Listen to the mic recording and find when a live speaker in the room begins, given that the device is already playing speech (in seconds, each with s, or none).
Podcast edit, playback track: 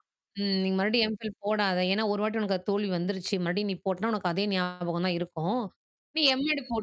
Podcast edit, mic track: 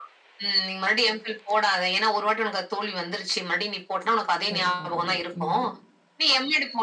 4.5 s